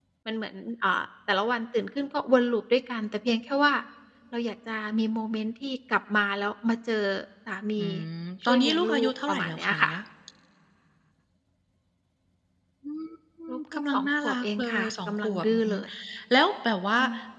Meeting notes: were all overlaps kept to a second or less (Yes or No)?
No